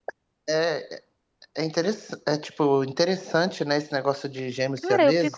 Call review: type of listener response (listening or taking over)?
taking over